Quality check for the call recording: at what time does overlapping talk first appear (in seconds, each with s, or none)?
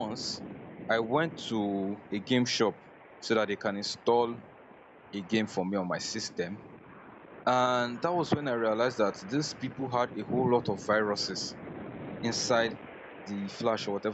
none